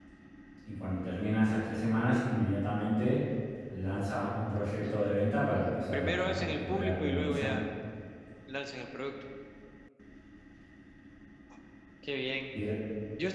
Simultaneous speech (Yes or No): Yes